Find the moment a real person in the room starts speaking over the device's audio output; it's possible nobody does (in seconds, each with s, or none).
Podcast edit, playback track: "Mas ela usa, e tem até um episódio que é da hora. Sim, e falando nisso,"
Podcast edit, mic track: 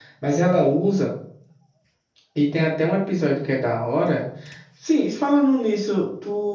none